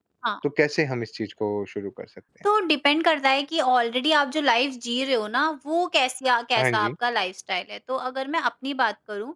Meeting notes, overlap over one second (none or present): none